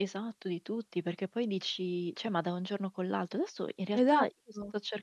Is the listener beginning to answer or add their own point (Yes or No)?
No